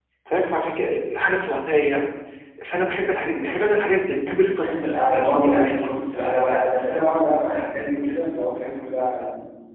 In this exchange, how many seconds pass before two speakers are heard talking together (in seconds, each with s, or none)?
4.6 s